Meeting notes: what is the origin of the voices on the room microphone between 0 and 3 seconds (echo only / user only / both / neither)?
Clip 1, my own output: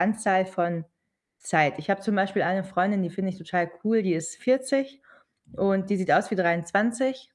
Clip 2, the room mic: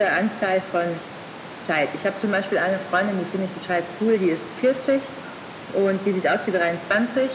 echo only